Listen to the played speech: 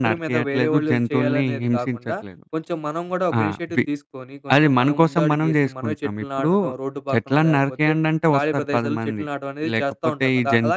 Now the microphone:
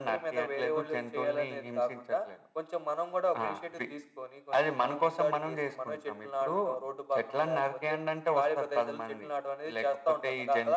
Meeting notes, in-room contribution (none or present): none